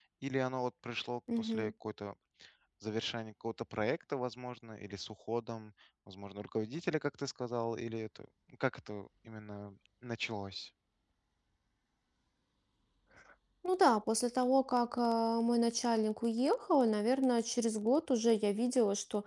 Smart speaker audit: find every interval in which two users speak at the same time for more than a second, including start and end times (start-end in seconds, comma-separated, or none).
none